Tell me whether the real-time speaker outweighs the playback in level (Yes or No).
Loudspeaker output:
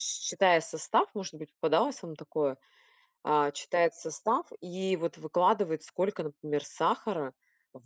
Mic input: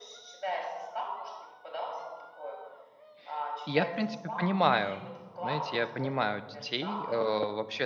Yes